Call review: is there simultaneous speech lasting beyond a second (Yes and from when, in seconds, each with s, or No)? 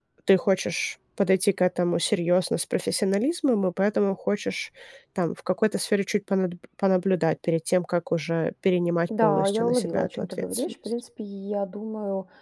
Yes, from 9.1 s